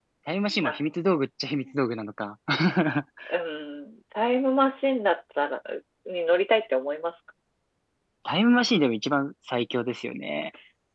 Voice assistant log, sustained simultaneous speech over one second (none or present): none